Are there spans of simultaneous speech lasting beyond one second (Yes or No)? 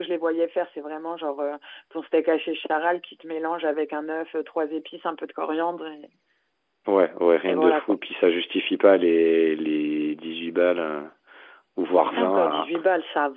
No